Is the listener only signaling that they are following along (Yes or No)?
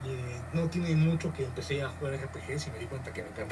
No